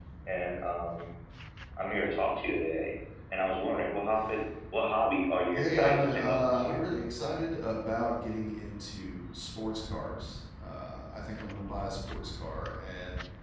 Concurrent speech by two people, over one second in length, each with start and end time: 5.5-6.8

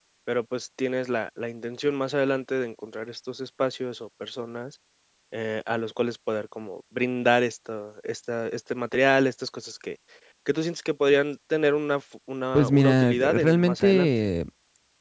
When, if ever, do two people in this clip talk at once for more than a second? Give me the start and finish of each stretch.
12.5-14.1

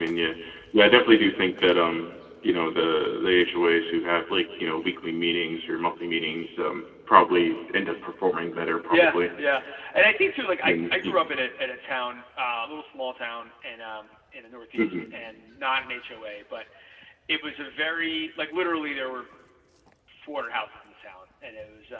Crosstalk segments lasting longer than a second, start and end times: none

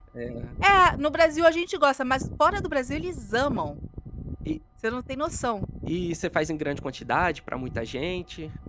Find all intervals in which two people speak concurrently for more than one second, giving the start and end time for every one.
none

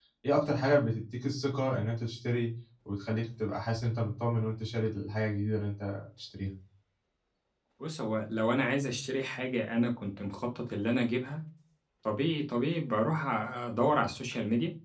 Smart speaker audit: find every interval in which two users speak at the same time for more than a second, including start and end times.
none

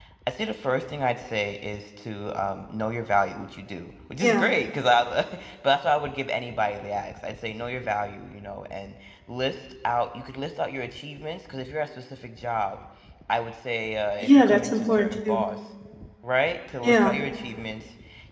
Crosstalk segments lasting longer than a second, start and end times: 14.2-15.4

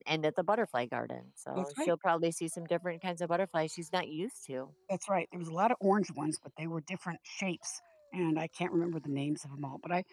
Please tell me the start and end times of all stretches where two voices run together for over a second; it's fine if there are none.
none

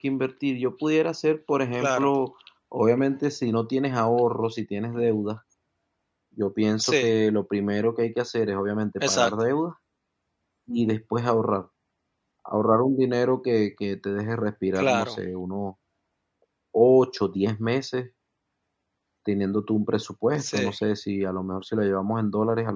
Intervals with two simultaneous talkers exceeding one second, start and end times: none

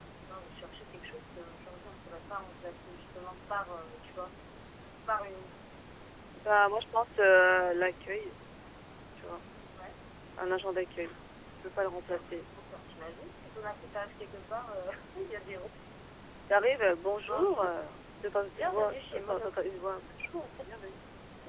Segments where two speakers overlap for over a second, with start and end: 18.5-19.8

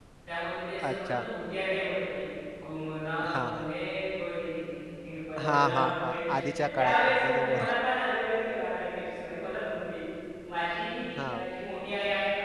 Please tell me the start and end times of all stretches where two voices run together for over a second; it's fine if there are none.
5.4-7.6

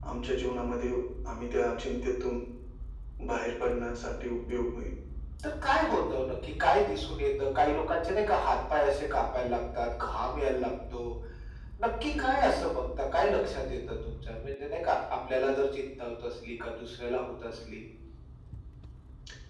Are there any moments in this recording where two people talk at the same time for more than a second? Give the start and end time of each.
none

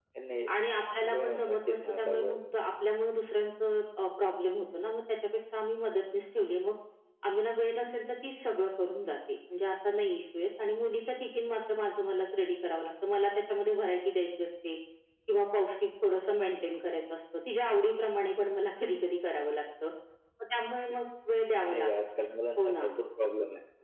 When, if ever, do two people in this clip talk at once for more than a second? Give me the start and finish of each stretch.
1.1-2.4

